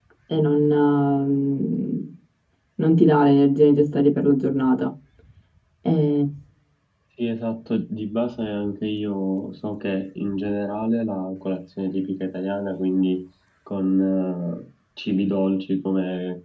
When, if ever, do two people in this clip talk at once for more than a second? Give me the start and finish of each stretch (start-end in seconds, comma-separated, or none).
none